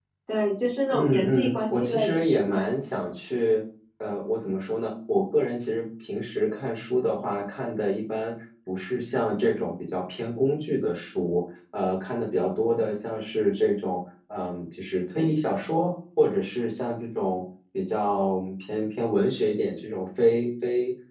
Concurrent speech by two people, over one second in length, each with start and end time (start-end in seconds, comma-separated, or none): 0.9-2.5